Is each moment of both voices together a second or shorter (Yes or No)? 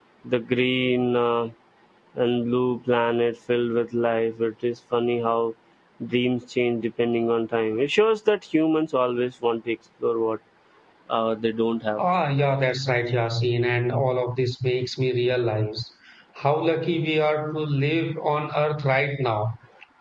Yes